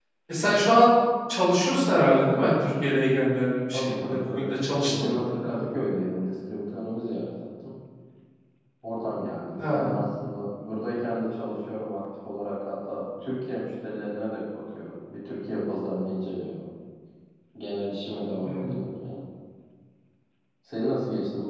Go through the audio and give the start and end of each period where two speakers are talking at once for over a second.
3.7-5.3

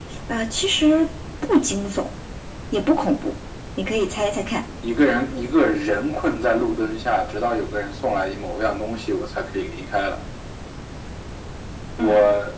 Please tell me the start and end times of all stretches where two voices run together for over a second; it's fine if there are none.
none

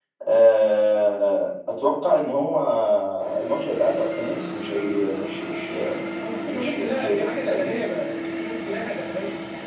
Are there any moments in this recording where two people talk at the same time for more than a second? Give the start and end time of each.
6.5-7.7

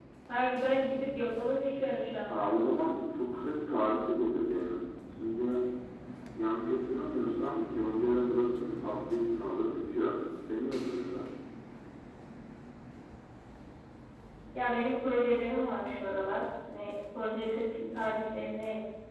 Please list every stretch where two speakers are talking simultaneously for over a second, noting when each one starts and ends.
none

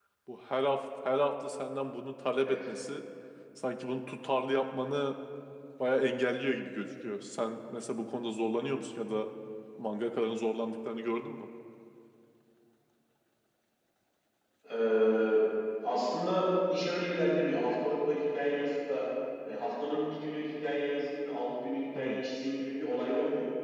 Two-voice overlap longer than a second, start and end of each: none

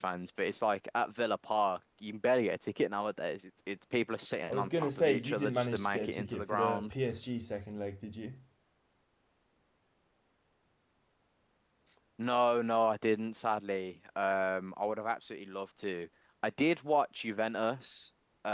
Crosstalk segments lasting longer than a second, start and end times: 4.5-6.9

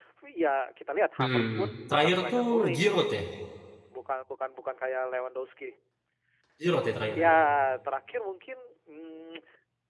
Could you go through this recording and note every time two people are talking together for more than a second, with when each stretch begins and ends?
1.2-3.1

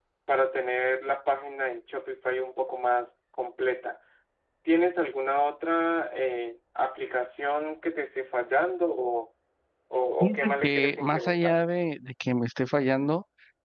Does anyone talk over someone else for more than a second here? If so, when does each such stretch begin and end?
10.2-11.6

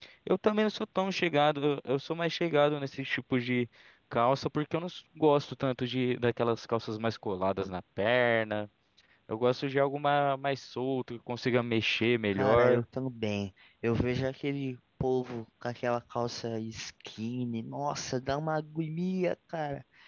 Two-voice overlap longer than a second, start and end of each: none

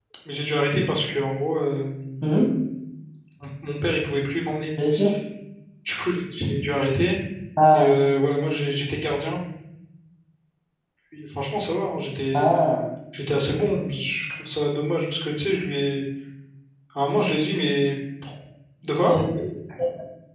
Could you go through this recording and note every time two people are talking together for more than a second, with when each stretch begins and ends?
none

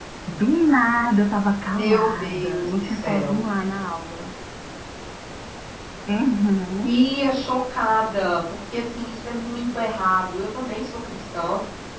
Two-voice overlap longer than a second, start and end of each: 1.7-3.5

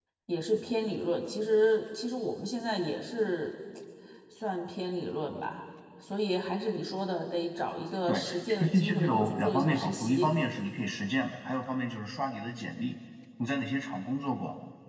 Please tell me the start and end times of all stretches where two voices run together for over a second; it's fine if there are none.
8.1-10.3

